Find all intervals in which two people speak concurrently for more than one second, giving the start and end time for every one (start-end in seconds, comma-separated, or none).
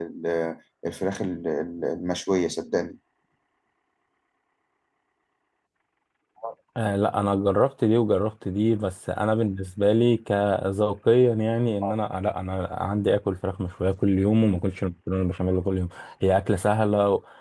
none